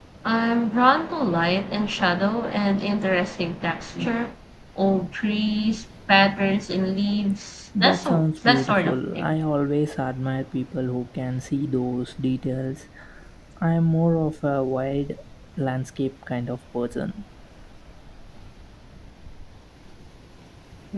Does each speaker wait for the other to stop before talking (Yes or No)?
No